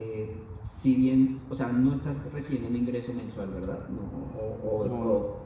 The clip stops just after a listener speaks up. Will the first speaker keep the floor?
Yes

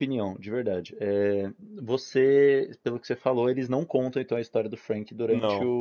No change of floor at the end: Yes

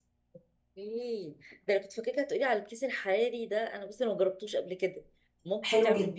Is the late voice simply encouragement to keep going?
No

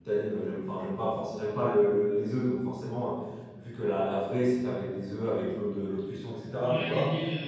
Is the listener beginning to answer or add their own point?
Yes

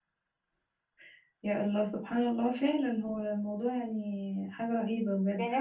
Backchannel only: No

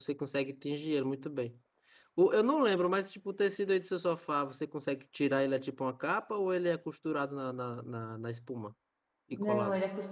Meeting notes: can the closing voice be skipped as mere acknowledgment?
No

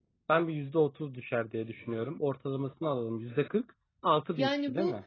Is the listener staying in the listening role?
No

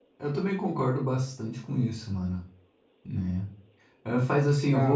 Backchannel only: Yes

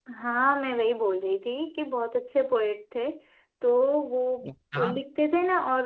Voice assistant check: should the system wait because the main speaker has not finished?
Yes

